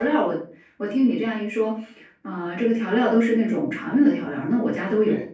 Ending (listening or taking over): taking over